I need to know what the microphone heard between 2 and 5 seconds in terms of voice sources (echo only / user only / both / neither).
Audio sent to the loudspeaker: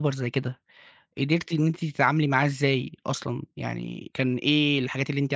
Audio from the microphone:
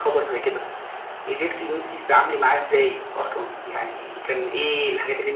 echo only